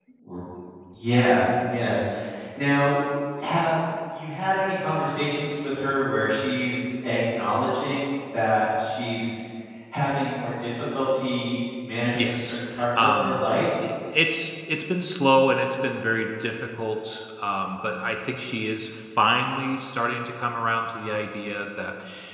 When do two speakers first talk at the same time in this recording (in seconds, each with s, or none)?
12.1 s